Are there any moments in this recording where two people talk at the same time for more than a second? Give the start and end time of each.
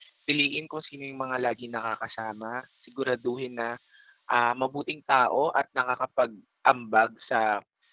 none

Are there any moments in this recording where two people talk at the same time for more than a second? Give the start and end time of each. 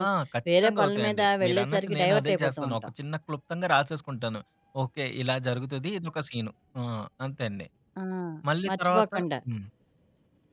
0.6-2.9

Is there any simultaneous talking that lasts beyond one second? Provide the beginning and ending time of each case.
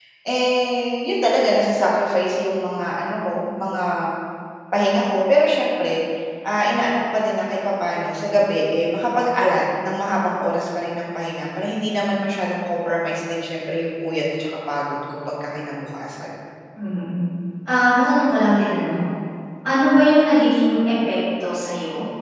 none

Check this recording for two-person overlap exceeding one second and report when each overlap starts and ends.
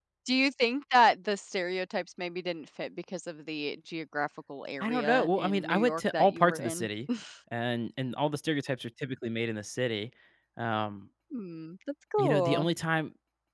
4.8-6.9

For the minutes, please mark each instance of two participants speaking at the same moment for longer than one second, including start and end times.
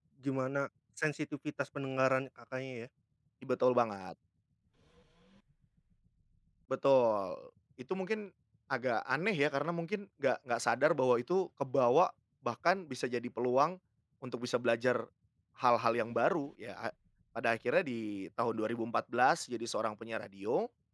none

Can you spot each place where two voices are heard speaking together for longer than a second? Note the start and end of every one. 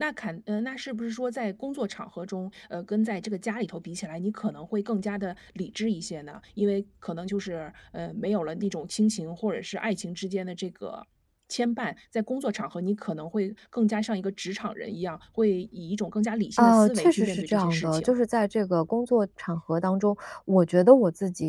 16.6-18.1

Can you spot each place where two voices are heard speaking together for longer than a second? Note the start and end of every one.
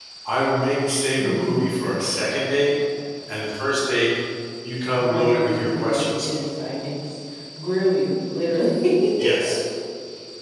5.0-6.3

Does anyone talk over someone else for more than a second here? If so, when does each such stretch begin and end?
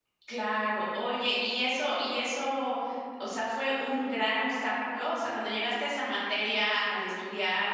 none

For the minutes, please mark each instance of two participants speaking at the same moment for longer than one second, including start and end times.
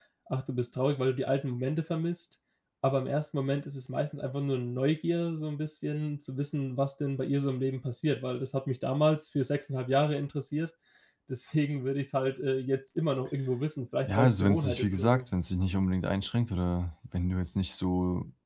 14.0-15.2

